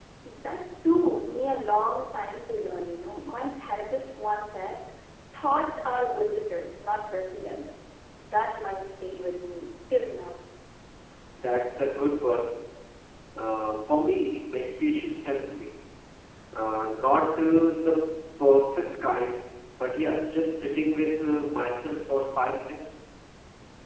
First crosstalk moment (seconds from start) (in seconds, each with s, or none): none